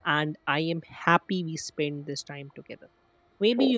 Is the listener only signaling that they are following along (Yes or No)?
Yes